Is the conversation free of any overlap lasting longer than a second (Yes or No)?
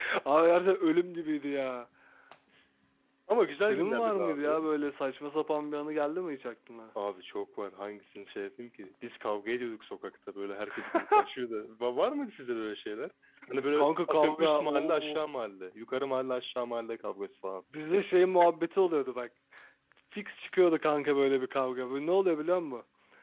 No